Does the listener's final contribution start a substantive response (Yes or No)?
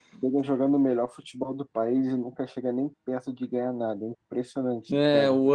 Yes